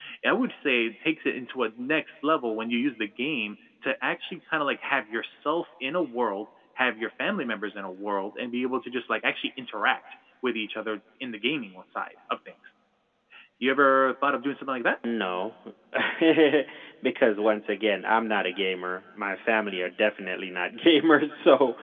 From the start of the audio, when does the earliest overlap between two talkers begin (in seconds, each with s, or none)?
none